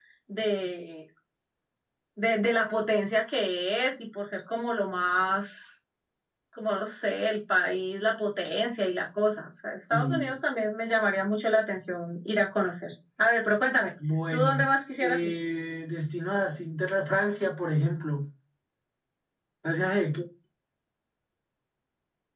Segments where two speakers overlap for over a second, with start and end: none

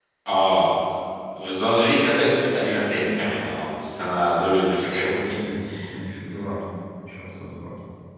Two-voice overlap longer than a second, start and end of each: none

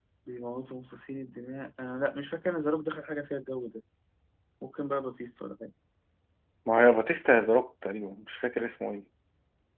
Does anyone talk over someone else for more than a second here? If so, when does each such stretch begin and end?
none

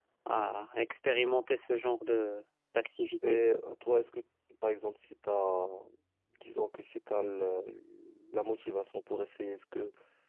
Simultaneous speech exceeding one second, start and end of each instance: none

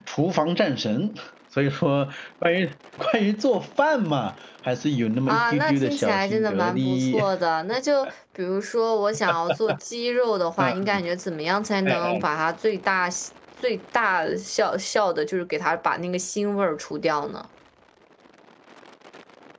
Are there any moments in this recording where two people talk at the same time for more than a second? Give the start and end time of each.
5.3-7.2

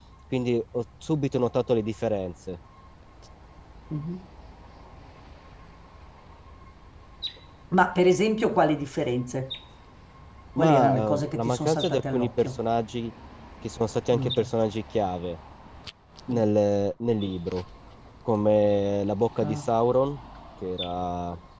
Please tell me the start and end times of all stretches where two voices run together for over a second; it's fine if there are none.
10.6-12.6

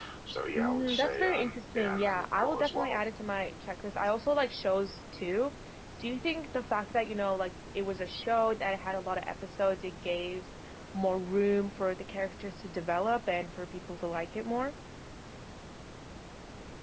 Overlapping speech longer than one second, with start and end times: 0.6-3.0

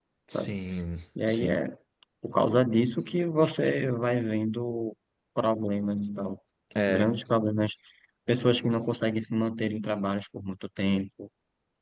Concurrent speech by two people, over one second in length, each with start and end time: none

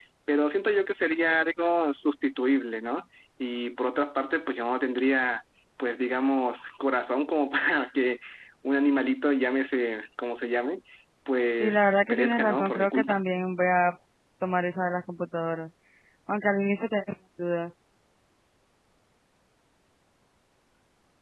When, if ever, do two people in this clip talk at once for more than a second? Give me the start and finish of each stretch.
11.6-13.2

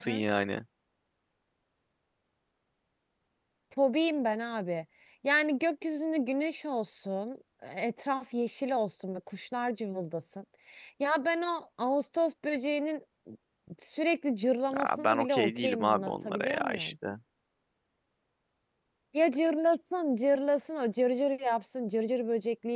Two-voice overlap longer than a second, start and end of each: 14.7-16.9

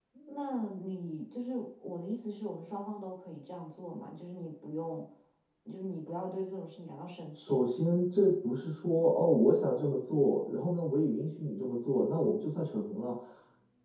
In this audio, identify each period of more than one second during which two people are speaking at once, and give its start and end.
none

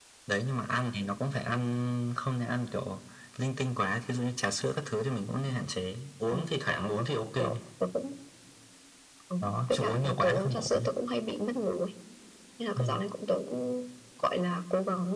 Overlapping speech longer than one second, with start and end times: 9.4-10.9

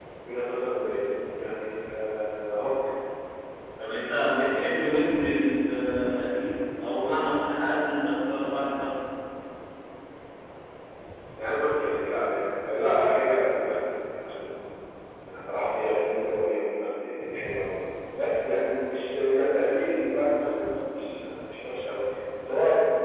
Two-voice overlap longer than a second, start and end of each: 4.0-5.2

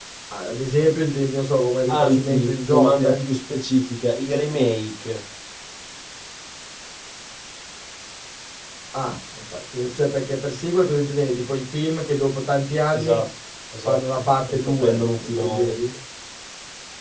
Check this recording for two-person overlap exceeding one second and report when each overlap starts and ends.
1.9-3.2, 13.8-15.8

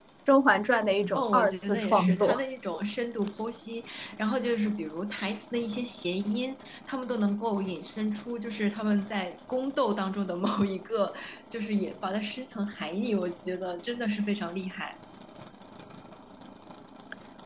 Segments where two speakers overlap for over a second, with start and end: 1.2-2.4

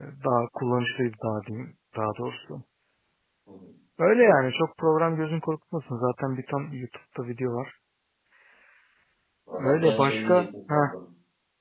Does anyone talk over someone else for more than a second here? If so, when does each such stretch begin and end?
9.5-10.9

